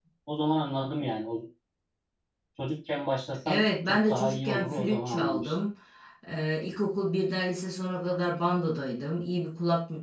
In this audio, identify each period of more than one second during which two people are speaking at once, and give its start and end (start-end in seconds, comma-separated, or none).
3.5-5.5